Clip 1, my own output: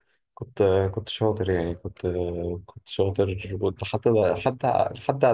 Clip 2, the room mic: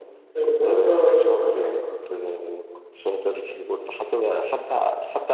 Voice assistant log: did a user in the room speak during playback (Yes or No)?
Yes